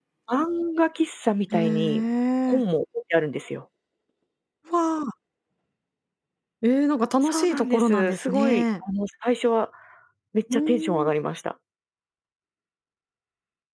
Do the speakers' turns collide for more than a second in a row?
Yes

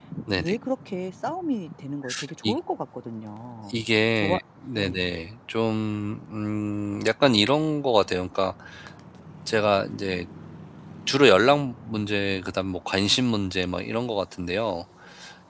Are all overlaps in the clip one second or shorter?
Yes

